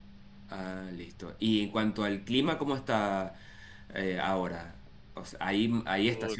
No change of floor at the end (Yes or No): Yes